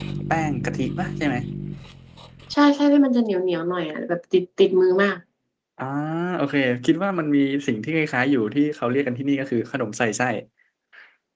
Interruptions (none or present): none